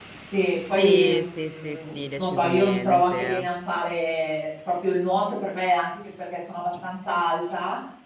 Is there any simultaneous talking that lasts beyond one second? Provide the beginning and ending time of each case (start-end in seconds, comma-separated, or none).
0.7-3.5